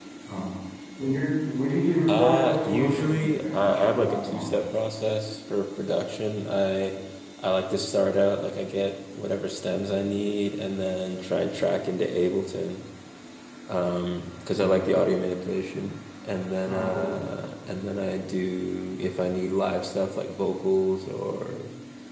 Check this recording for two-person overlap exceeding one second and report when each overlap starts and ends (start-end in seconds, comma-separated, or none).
2.1-4.4